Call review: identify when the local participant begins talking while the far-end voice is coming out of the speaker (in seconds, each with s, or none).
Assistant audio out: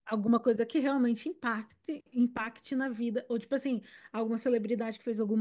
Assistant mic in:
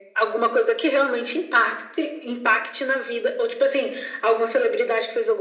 none